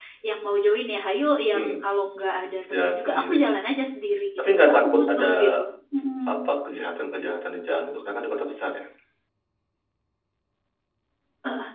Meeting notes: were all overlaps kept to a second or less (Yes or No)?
No